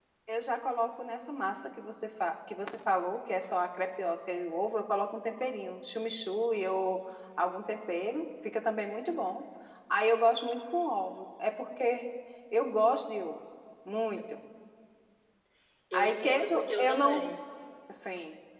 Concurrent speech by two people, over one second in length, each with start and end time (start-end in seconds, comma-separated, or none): 15.9-17.3